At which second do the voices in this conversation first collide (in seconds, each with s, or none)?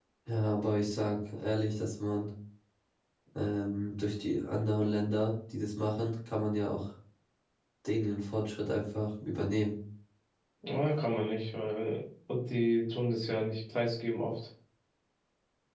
none